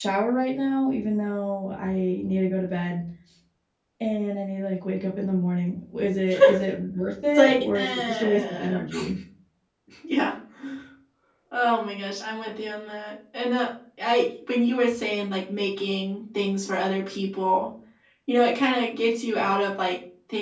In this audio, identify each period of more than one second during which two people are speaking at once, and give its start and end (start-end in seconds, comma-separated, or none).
7.3-8.8